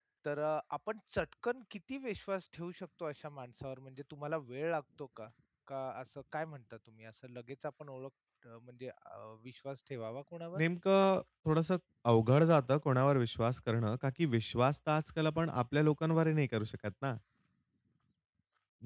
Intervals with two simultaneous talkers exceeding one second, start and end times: none

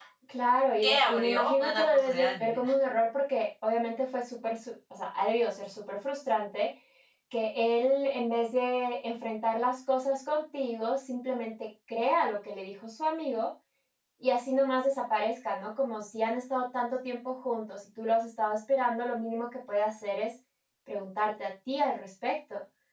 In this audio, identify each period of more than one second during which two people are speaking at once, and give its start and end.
0.8-2.7

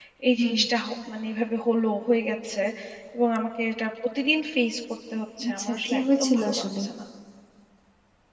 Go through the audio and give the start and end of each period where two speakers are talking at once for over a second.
5.5-6.8

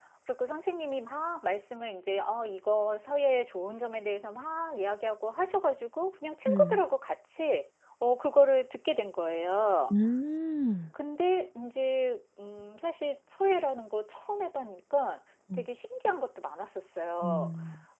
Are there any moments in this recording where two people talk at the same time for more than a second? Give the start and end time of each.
none

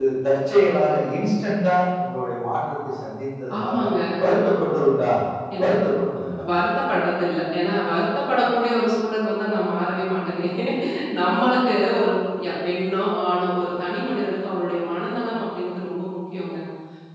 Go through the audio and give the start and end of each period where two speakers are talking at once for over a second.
none

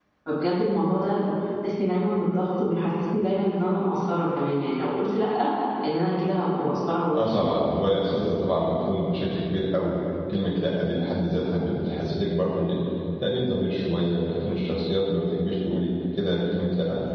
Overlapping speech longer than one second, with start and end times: none

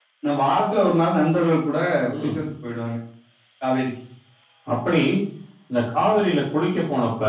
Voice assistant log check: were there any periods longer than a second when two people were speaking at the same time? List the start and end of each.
none

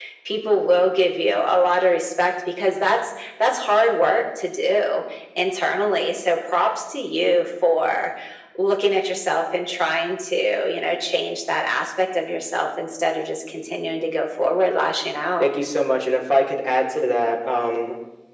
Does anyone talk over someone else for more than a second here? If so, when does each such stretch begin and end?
none

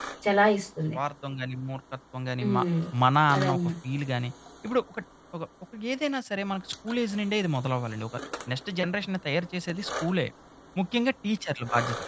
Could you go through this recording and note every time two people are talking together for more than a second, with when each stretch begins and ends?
none

